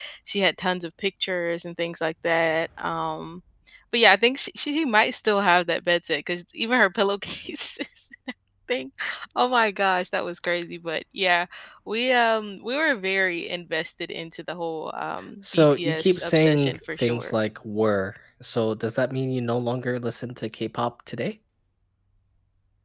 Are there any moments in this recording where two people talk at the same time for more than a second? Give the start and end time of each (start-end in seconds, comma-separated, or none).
15.5-17.4